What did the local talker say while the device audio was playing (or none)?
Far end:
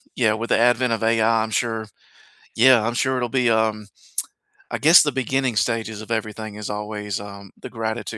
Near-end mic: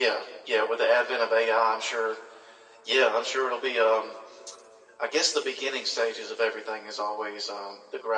none